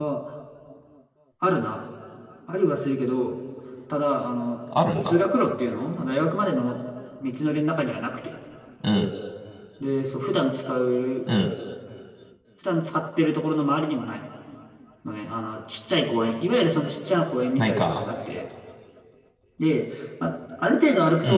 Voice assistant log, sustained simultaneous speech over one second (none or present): none